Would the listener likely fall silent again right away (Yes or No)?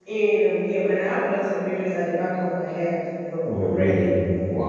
No